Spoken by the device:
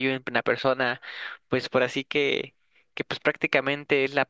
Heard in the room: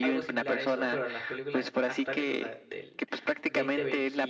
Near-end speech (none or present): present